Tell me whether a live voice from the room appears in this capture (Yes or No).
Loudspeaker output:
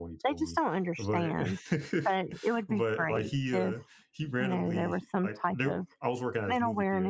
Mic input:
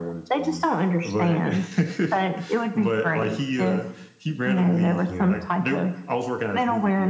Yes